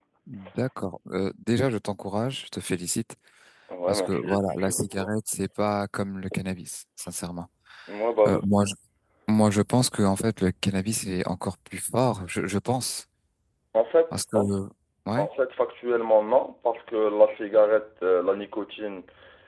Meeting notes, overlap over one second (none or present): present